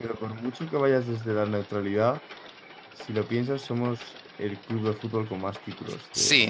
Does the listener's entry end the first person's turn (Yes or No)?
Yes